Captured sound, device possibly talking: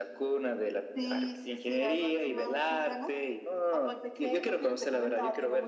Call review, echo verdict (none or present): present